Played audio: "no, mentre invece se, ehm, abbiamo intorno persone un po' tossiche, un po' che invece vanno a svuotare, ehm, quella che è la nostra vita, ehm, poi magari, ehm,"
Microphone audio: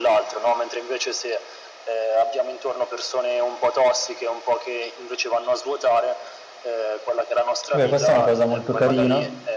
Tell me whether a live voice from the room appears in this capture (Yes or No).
Yes